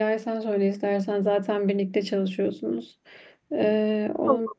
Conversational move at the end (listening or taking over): listening